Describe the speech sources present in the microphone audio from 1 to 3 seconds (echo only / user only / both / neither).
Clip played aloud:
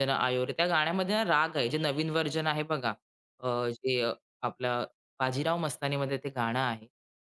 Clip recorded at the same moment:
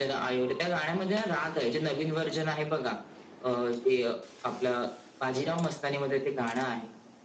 echo only